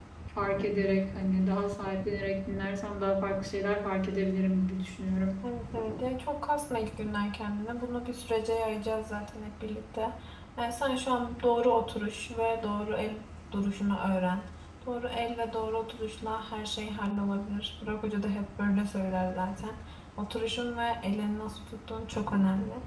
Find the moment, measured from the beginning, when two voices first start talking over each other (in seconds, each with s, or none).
none